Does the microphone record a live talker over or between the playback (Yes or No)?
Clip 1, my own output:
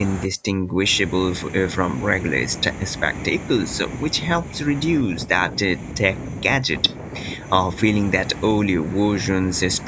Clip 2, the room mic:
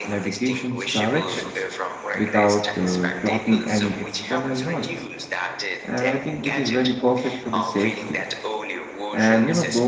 Yes